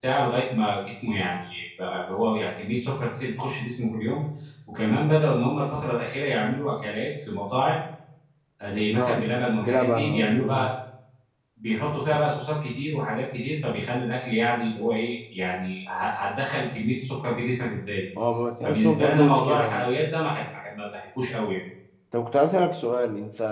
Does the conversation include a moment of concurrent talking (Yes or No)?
Yes